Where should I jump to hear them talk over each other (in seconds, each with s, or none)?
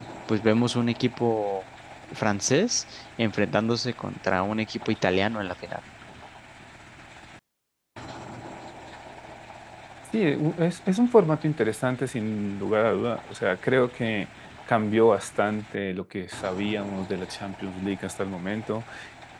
none